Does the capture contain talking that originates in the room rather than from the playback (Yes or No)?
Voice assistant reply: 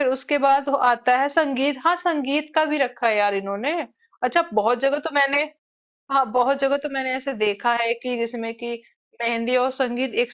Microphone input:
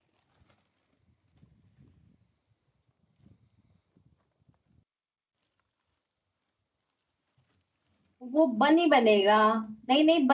Yes